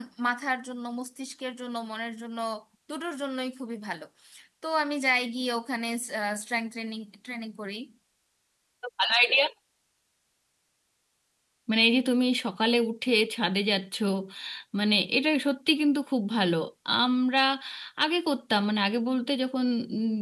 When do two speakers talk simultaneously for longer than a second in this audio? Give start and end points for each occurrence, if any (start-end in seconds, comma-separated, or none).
none